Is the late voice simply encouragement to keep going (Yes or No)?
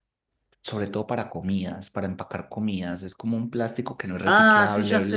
No